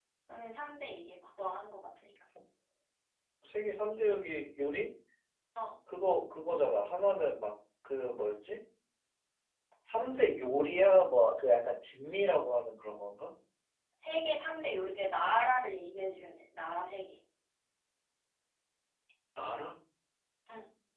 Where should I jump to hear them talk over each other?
none

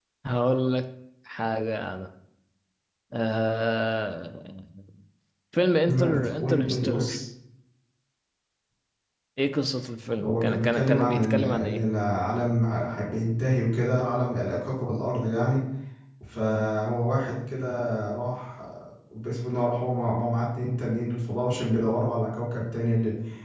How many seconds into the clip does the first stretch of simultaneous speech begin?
5.9 s

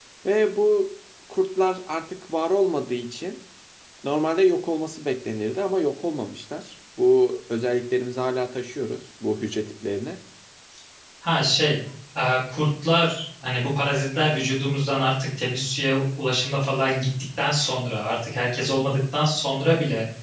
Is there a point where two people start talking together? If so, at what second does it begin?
none

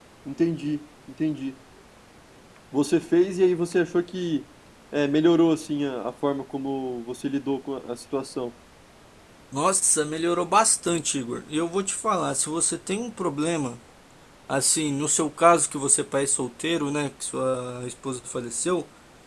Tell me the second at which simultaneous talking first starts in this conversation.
none

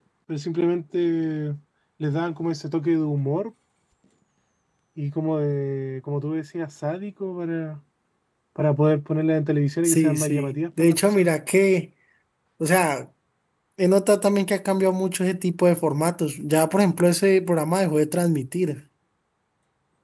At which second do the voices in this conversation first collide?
9.8 s

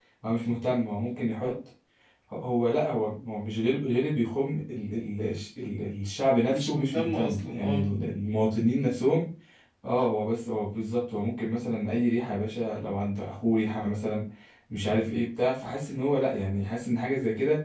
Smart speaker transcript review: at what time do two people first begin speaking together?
6.5 s

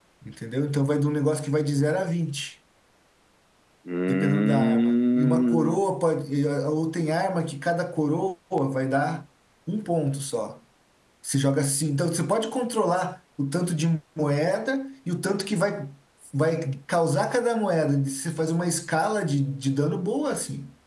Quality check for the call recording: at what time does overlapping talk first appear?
4.1 s

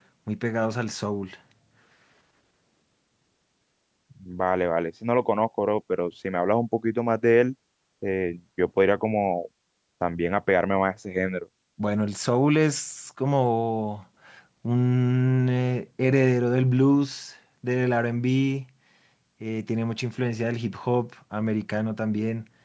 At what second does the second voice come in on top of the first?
none

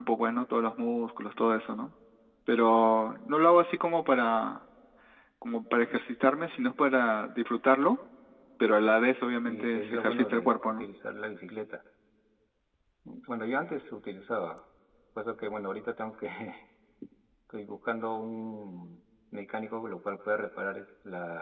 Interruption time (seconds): 9.4 s

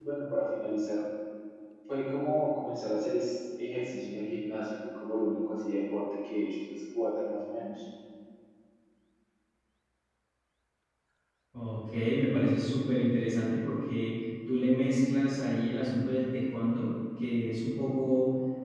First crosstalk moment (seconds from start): none

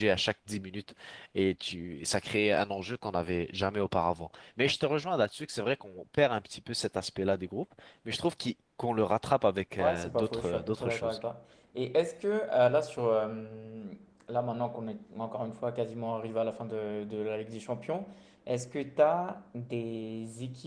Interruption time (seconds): 9.8 s

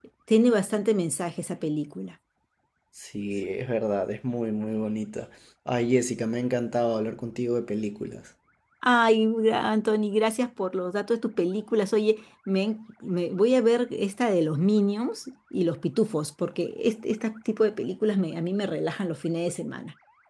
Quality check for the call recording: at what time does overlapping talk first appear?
none

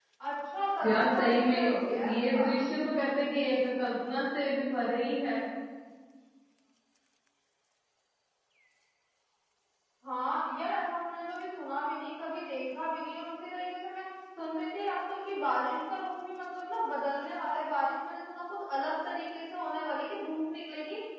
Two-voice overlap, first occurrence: 0.8 s

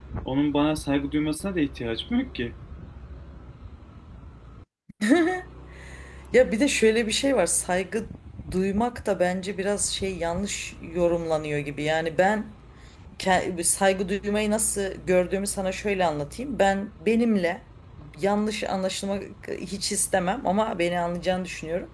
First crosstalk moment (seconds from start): none

